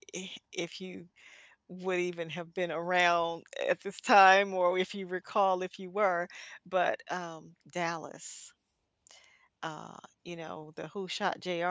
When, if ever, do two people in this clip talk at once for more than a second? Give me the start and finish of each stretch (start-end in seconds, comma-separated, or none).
none